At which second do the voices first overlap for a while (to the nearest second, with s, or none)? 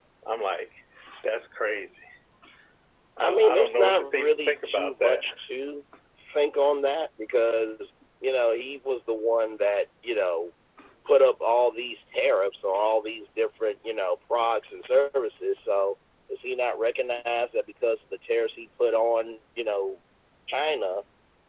3 s